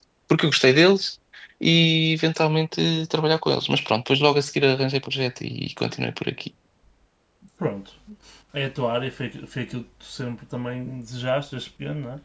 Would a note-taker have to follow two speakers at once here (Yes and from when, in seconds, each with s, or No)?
No